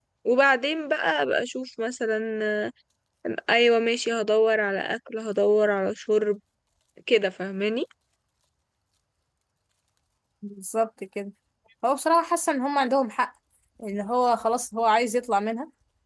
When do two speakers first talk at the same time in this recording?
none

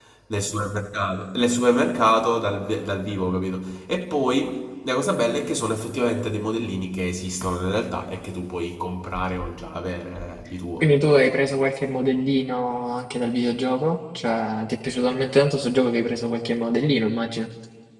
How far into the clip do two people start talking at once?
none

